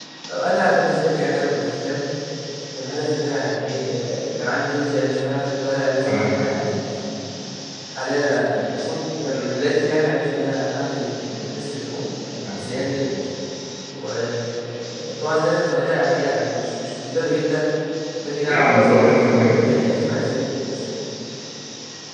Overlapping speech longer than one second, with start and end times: 18.5-19.9

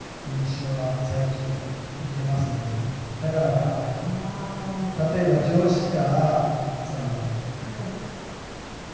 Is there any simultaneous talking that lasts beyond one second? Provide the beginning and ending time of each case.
none

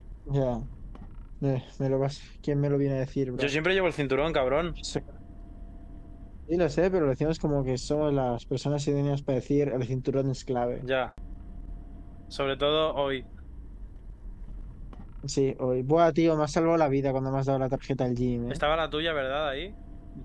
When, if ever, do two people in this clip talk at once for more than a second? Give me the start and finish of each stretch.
none

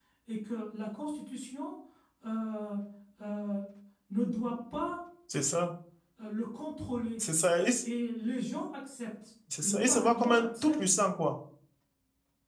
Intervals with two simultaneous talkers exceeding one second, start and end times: 9.6-10.8

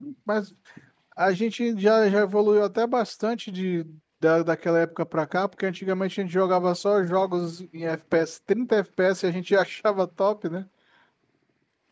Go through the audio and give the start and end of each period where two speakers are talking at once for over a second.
none

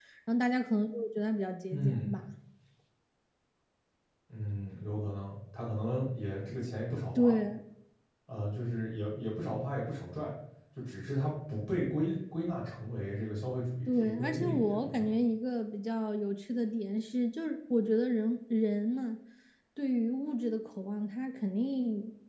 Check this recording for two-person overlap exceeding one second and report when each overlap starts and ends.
13.9-15.1

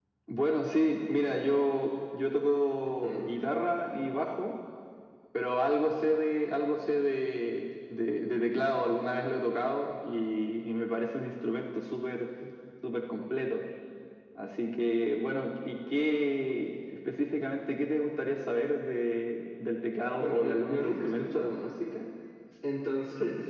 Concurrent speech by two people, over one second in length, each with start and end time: 20.2-21.5

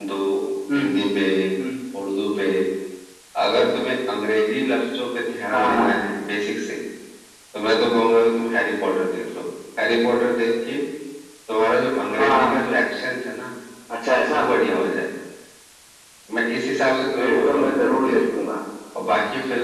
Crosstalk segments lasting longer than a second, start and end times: 17.1-18.4

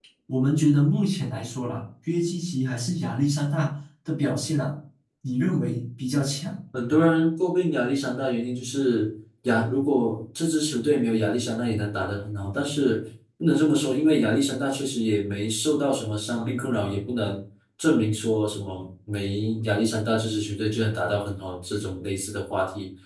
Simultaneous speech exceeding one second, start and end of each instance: none

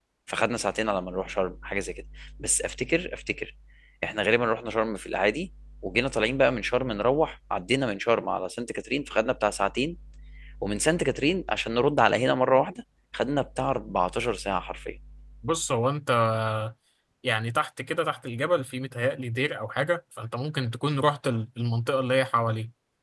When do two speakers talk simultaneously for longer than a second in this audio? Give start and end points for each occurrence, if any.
none

